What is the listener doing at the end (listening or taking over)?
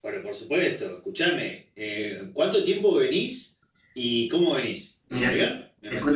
taking over